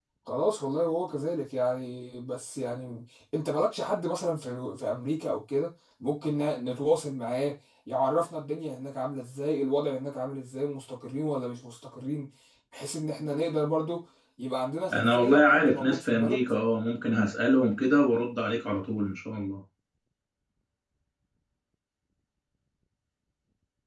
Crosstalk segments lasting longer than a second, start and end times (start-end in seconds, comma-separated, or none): 14.9-16.4